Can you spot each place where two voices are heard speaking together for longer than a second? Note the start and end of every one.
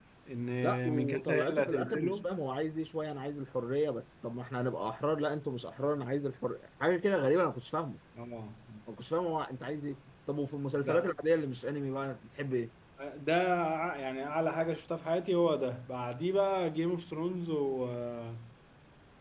0.9-2.3

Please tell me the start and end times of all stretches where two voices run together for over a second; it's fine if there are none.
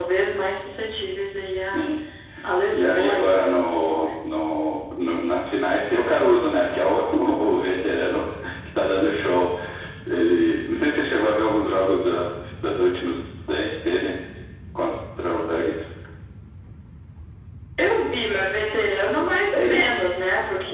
2.7-4.1

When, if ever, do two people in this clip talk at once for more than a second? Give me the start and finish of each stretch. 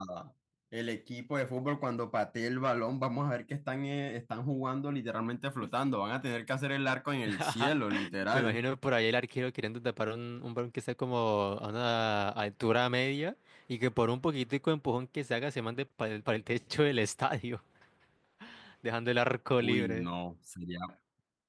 none

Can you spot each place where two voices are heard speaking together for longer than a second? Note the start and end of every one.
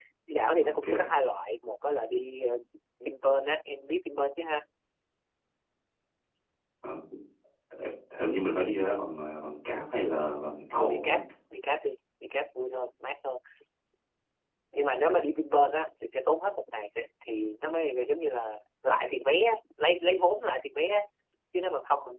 none

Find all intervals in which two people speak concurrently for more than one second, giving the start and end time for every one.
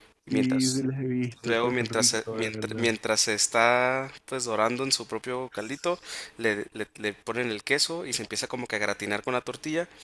1.4-2.9

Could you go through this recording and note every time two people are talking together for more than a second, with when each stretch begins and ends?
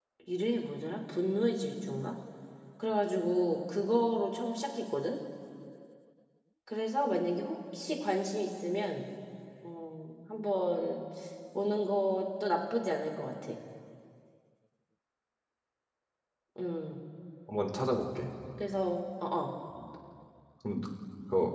none

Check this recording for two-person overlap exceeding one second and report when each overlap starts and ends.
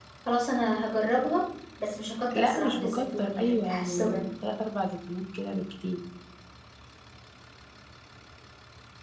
2.4-4.3

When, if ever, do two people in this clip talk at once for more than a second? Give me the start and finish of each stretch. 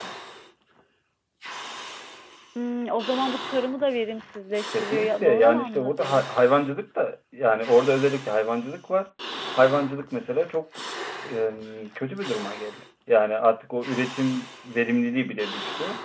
4.8-6.2

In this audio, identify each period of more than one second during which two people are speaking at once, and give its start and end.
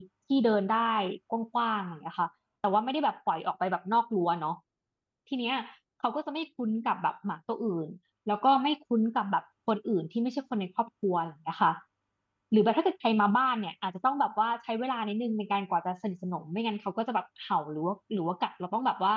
none

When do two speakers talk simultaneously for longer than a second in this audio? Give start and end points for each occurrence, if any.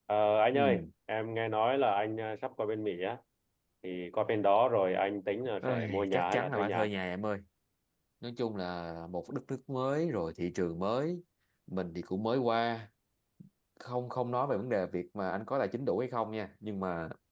5.6-6.9

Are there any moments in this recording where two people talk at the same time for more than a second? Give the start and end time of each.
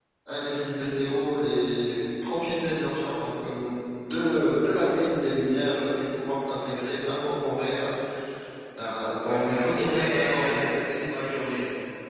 9.2-10.6

